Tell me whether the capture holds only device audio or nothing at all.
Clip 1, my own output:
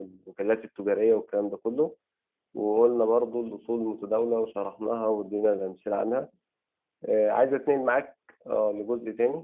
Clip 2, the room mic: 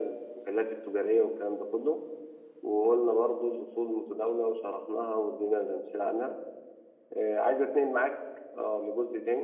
Yes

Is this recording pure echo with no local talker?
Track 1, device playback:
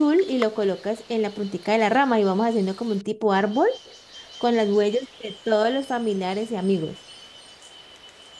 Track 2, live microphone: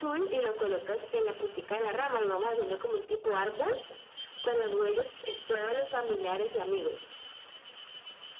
Yes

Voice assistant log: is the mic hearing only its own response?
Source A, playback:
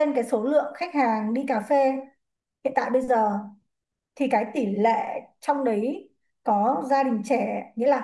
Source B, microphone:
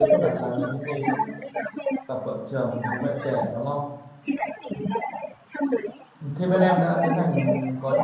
No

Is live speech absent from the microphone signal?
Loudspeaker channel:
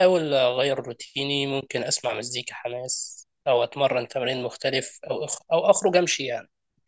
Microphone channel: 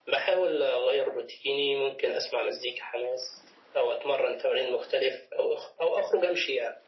Yes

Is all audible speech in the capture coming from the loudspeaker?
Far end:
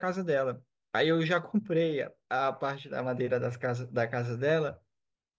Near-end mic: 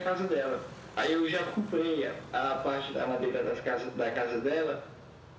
Yes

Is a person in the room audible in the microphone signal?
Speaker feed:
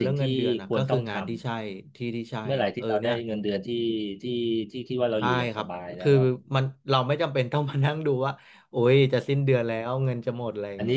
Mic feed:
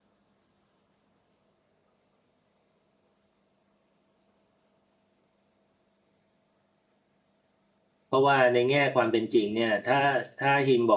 Yes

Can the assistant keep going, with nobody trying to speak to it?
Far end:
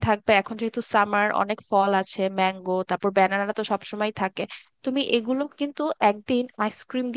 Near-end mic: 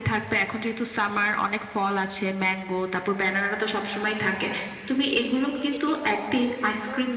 No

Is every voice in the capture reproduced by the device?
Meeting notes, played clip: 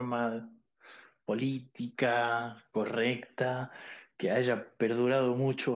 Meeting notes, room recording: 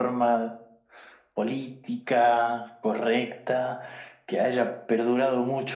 Yes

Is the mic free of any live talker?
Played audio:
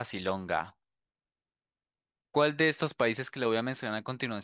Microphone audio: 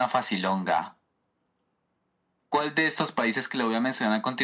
Yes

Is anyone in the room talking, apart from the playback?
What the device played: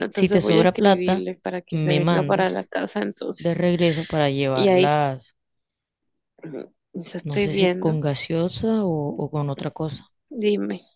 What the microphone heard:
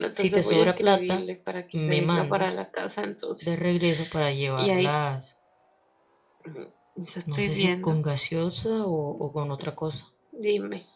No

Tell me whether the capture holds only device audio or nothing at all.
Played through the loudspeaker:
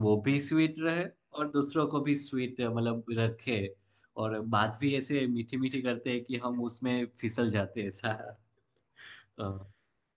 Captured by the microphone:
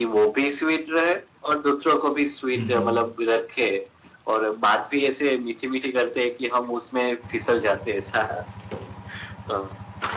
No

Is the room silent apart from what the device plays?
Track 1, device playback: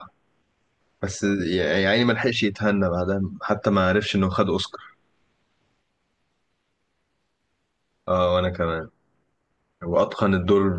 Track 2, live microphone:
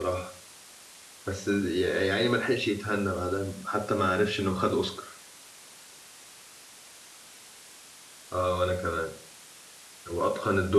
Yes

